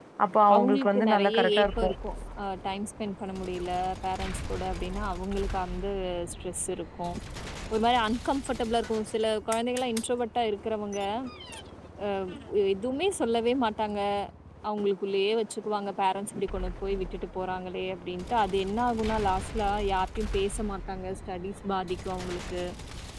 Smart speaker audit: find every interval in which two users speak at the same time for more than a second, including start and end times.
0.6-1.9

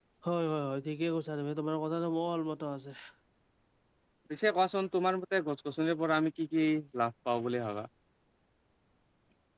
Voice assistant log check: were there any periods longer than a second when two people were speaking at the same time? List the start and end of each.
none

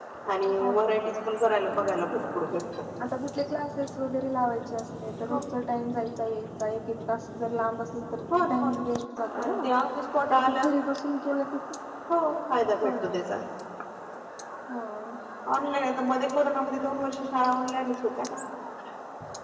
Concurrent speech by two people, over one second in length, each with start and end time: none

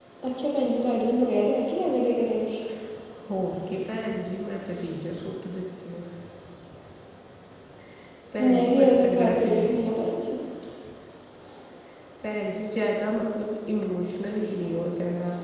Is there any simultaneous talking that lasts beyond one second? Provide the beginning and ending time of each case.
8.4-9.7

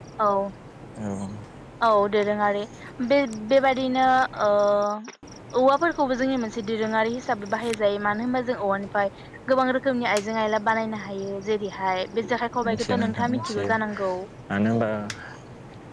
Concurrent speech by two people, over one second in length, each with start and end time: 12.6-14.1

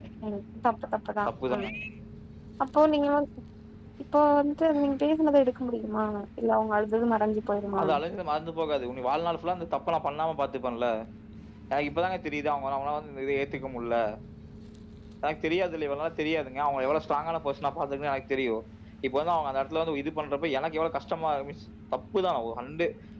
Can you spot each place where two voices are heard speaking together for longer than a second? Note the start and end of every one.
none

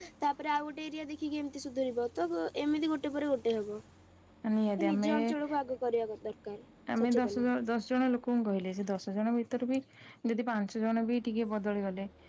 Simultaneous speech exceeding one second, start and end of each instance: none

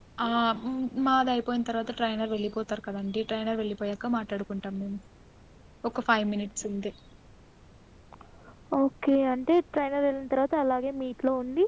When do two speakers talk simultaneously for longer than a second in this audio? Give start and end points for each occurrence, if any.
none

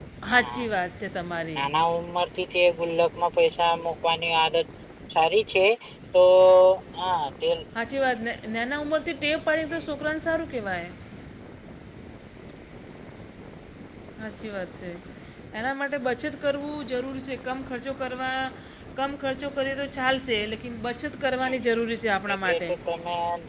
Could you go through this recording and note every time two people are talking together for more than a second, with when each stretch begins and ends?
none

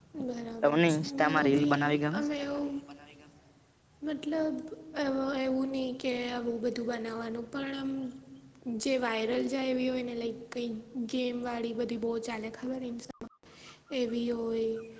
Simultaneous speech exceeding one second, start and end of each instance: 0.6-2.2

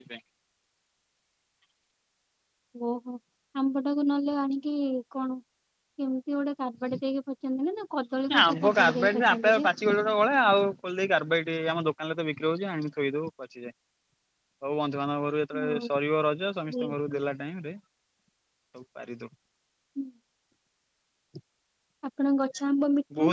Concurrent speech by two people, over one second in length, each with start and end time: 8.4-9.7

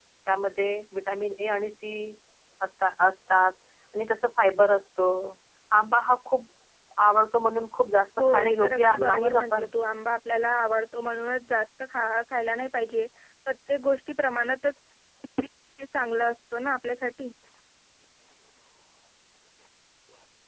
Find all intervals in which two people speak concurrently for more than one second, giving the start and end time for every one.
8.2-9.7

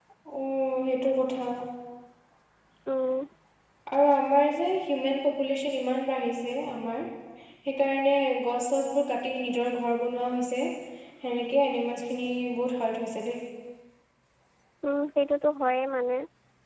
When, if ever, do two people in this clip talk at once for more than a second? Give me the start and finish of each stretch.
none

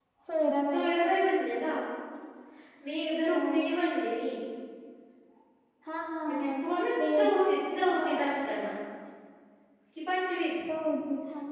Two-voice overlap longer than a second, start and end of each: 7.1-8.4

